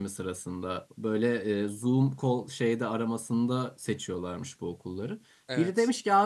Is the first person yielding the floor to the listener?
No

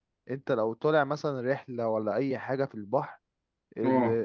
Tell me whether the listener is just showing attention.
Yes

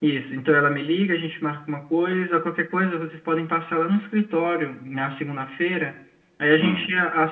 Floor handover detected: No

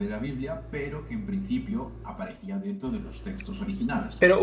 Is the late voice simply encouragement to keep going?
No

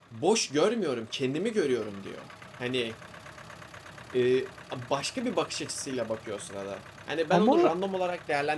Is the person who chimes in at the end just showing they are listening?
Yes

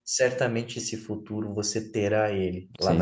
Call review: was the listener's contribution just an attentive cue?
No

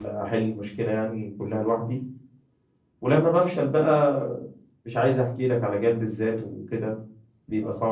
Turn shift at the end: Yes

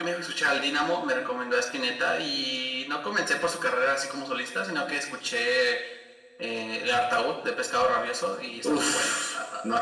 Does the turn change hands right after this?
Yes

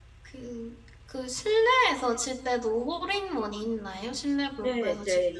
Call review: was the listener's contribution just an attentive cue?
No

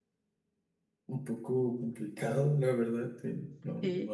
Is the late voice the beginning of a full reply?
No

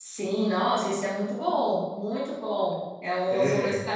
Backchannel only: Yes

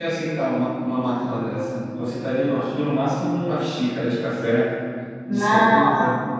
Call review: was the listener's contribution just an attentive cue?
No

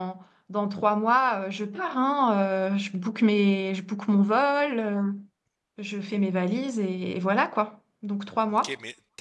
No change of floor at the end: No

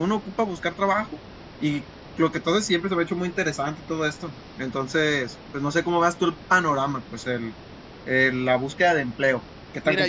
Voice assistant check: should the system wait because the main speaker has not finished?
No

